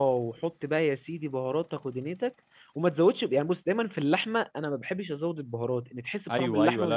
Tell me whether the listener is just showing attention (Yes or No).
No